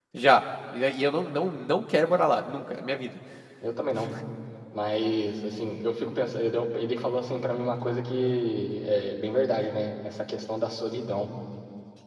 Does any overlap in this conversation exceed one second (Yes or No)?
No